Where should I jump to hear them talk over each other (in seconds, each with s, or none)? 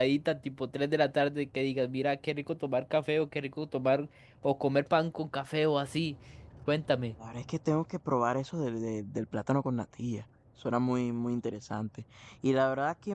none